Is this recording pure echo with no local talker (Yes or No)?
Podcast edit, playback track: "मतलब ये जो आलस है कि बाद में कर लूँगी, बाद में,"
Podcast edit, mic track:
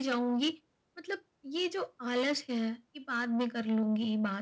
Yes